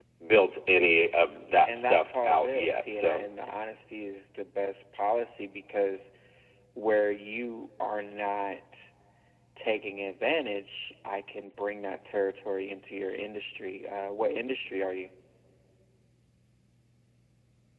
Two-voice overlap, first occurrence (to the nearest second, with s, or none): 2 s